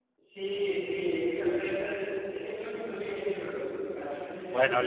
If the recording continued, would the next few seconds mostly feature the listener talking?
Yes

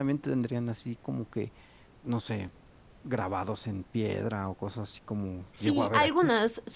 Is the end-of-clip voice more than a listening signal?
Yes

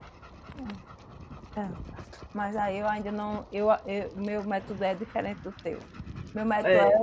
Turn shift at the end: No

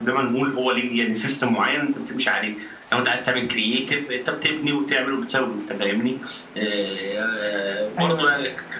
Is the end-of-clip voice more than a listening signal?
No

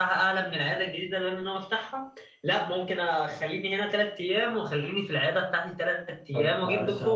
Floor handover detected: Yes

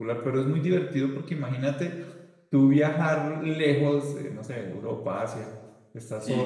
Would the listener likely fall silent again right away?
Yes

